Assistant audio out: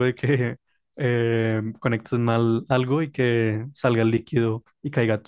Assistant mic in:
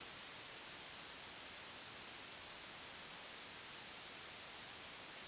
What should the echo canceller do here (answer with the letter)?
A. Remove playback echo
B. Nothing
B